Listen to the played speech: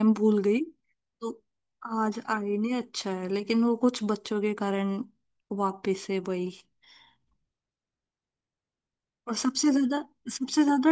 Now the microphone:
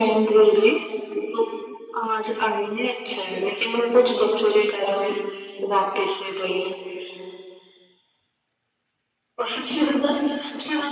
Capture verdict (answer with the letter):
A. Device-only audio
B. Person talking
A